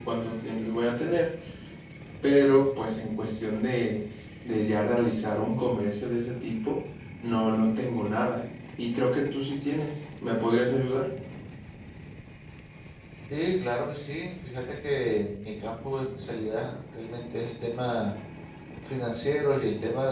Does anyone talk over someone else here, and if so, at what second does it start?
none

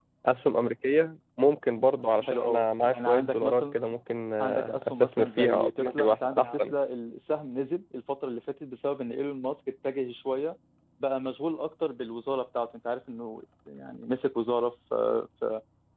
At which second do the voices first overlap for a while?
2.1 s

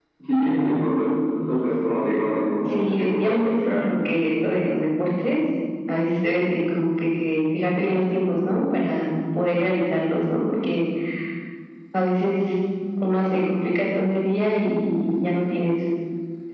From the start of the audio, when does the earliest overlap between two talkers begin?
2.6 s

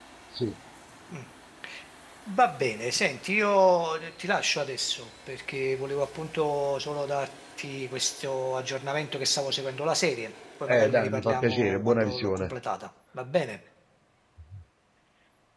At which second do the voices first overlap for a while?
10.7 s

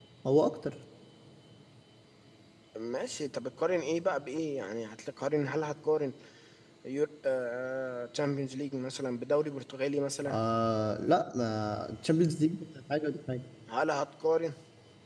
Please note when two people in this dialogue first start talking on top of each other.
none

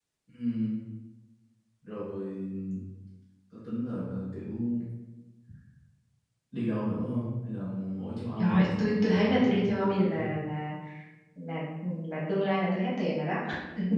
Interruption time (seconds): 8.4 s

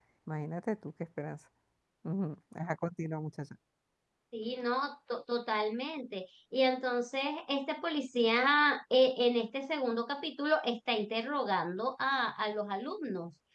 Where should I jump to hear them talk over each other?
none

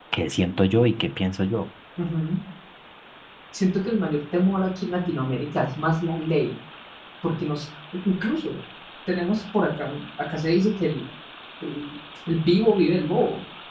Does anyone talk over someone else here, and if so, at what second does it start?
none

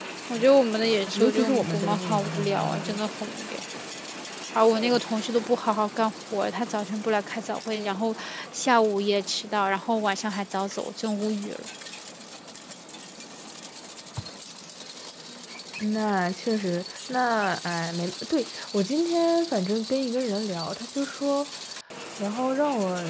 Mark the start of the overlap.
1.1 s

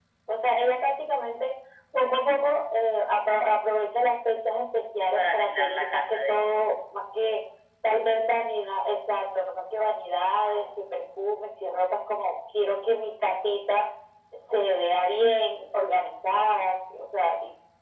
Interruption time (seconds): 5.1 s

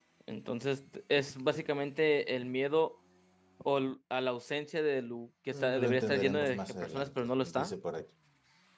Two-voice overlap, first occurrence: 5.5 s

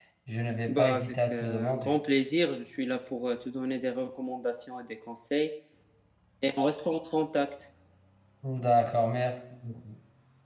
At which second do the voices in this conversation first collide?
0.7 s

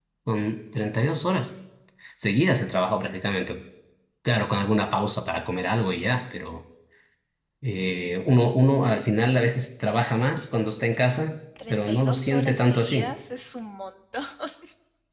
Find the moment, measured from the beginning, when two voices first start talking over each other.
11.6 s

